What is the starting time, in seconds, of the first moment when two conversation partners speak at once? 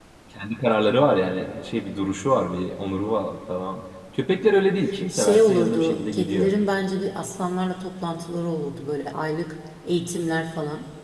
5 s

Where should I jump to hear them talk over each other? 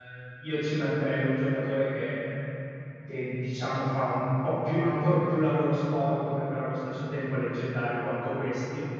none

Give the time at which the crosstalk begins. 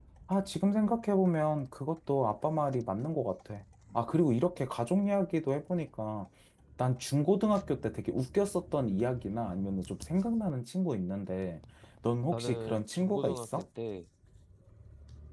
12 s

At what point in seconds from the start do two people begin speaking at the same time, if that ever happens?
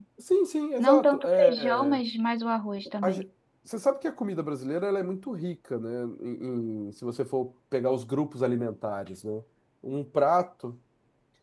1 s

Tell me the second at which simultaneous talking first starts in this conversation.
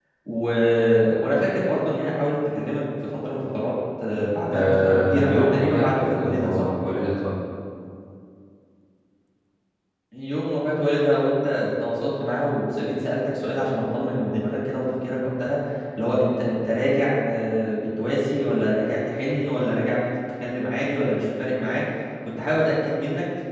4 s

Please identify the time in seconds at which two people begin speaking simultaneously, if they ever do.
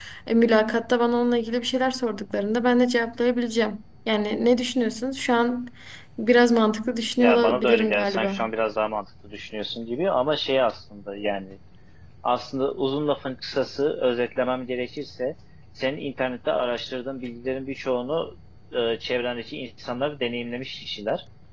7 s

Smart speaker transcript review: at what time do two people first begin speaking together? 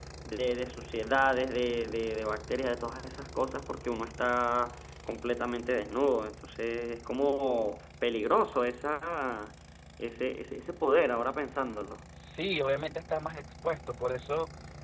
none

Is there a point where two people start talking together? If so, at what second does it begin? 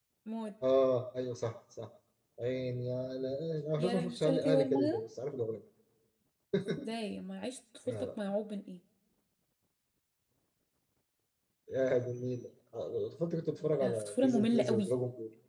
4 s

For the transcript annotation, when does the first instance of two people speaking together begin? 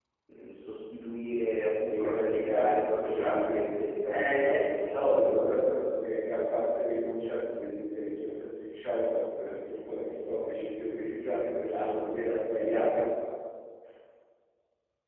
2 s

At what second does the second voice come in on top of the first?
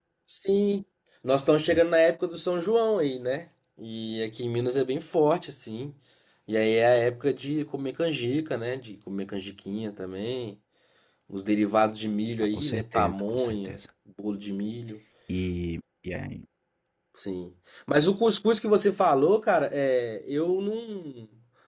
13 s

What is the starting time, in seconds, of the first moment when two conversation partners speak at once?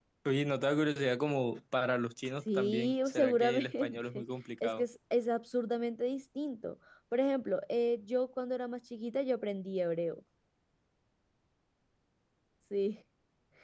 2 s

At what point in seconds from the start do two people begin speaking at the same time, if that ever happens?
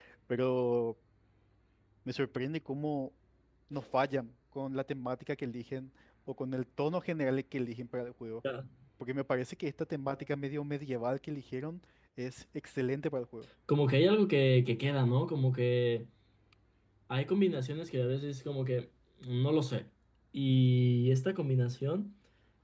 none

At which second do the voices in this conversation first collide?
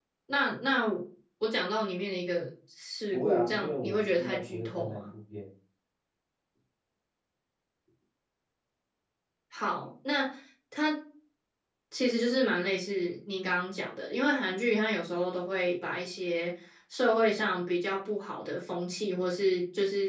3 s

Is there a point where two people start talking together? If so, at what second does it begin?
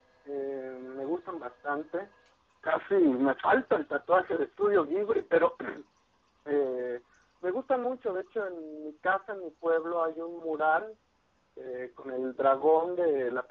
none

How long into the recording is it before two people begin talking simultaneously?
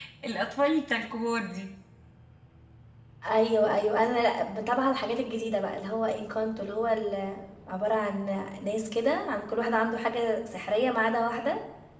none

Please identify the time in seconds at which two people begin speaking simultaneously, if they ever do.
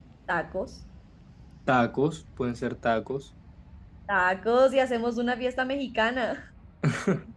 none

